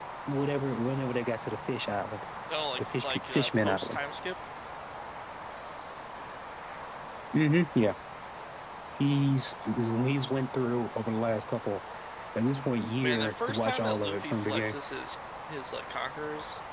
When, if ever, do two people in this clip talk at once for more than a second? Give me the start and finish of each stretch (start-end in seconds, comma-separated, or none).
2.8-4.0, 13.0-14.8